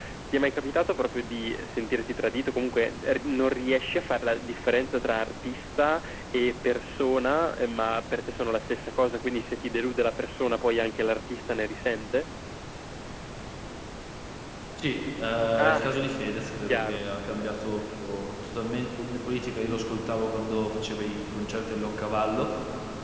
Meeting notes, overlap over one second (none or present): none